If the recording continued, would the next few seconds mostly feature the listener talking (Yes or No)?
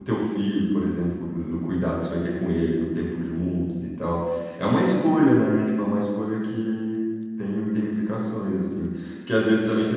No